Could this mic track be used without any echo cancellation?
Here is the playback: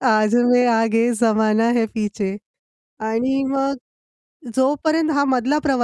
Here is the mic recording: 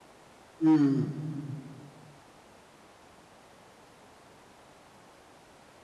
Yes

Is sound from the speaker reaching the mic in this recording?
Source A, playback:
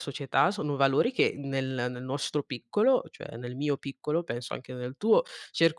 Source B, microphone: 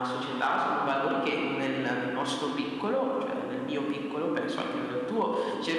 Yes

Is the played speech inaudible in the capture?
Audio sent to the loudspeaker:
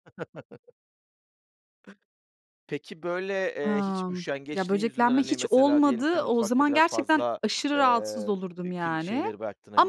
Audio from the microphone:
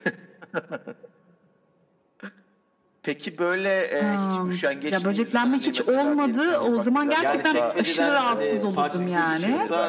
No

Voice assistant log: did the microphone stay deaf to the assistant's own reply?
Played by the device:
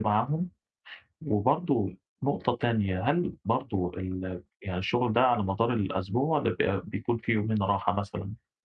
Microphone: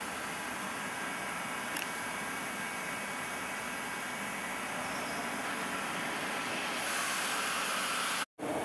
Yes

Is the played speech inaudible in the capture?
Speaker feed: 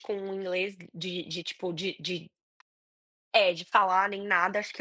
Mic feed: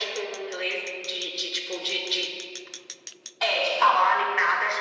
No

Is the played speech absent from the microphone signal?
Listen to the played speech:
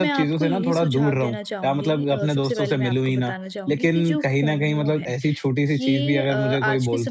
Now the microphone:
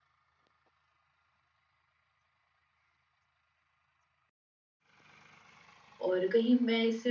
Yes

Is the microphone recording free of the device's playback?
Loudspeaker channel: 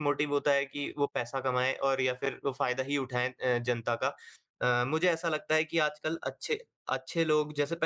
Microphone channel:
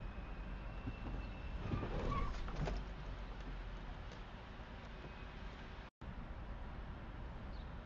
Yes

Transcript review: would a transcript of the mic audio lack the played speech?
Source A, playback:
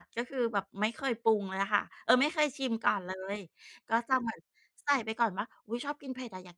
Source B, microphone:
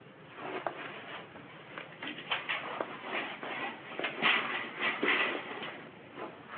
Yes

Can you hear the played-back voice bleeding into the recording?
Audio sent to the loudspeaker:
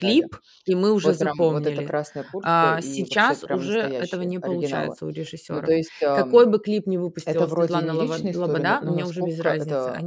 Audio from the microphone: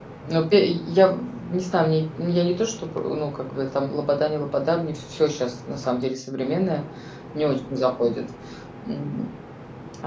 No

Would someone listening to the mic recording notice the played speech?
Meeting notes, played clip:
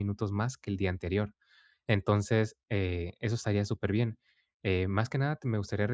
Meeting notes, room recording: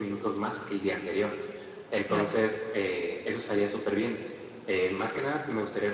Yes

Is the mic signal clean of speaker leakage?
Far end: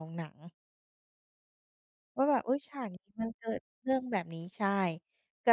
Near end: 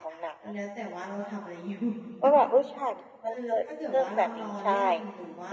No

